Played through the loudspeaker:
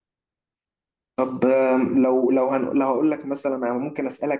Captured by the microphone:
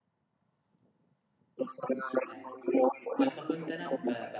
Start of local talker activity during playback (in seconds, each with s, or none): 2.3 s